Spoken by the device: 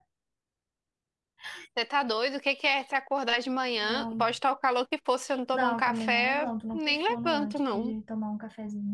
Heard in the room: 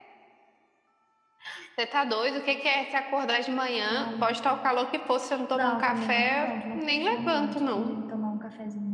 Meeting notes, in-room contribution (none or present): none